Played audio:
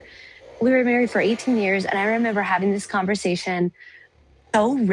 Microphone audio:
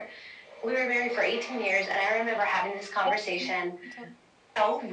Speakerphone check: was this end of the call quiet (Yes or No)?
No